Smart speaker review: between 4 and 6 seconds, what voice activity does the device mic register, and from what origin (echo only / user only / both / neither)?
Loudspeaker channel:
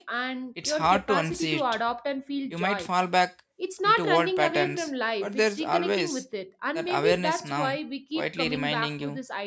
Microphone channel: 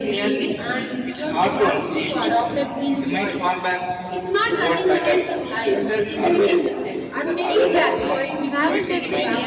echo only